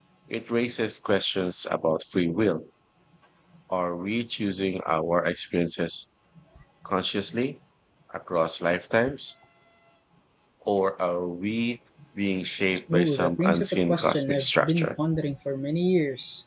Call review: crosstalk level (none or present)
present